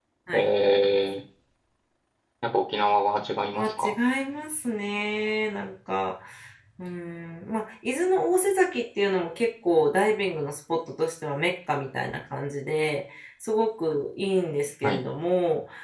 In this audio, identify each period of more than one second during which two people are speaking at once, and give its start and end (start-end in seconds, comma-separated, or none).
none